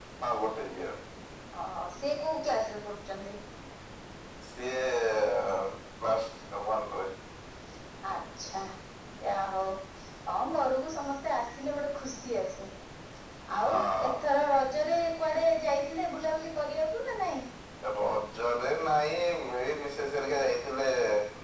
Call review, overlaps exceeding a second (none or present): none